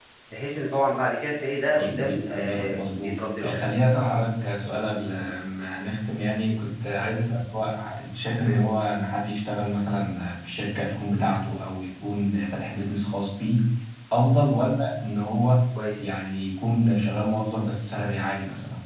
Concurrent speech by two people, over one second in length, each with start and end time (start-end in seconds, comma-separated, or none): 1.8-3.5